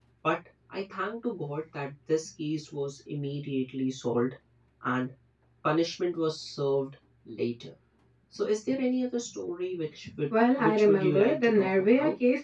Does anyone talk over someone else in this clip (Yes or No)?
Yes